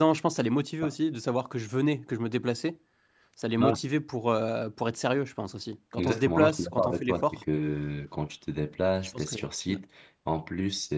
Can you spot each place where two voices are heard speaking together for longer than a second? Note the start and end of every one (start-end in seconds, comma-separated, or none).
6.0-7.4